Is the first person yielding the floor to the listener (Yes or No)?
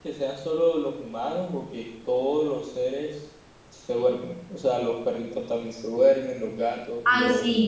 Yes